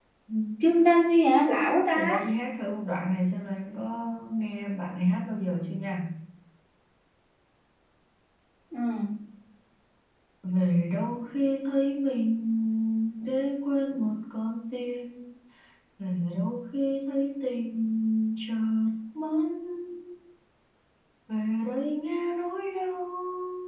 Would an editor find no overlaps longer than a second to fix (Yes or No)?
Yes